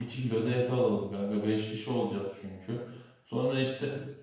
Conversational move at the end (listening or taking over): listening